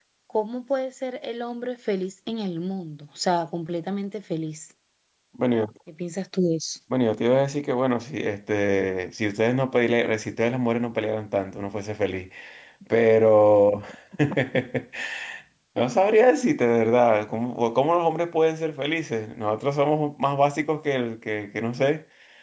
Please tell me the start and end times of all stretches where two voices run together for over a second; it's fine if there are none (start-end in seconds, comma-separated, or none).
none